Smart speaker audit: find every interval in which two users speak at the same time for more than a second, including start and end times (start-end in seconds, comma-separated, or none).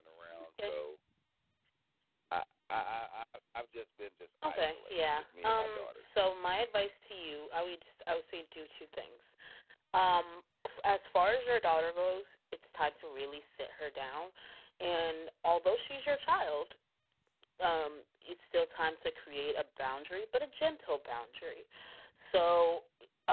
4.5-6.0